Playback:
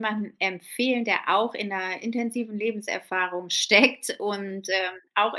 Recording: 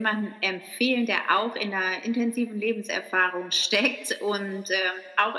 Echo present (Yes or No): Yes